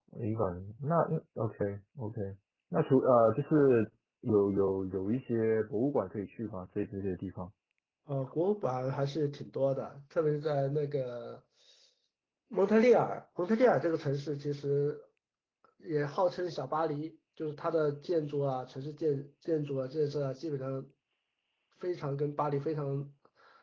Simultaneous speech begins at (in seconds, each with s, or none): none